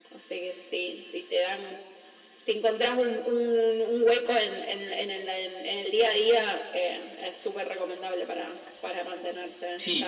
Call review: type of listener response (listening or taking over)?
taking over